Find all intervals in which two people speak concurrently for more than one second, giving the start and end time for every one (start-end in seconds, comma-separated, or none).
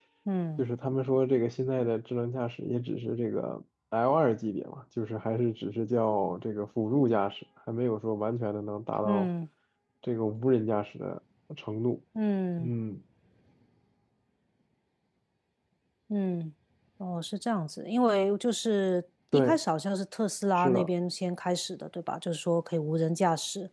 none